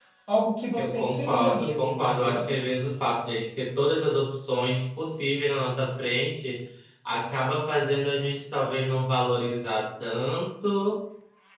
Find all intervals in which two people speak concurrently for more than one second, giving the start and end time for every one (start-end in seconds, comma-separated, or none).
0.8-2.5